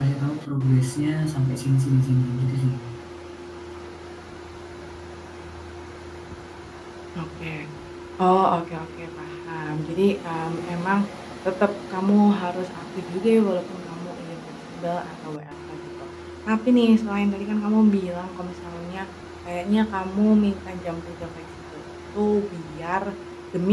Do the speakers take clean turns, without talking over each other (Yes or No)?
Yes